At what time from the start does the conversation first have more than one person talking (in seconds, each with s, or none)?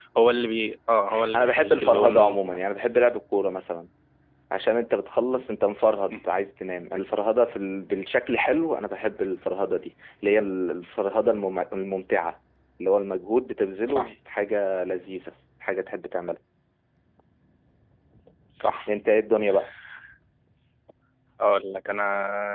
1.3 s